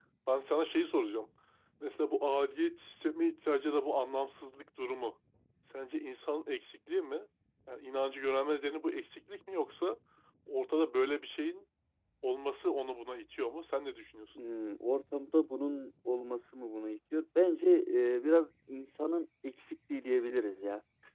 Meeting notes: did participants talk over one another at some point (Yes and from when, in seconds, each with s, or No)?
No